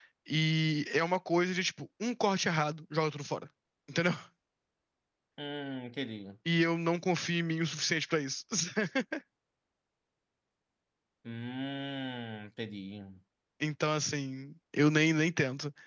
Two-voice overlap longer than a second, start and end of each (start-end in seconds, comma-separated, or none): none